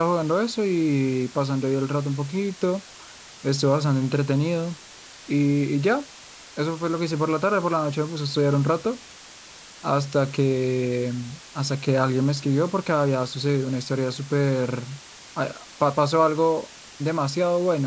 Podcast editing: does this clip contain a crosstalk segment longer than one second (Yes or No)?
No